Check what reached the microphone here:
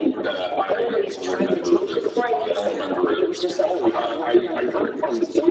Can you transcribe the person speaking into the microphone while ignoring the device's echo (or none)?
none